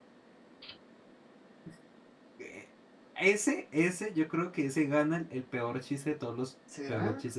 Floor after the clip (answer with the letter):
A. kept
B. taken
A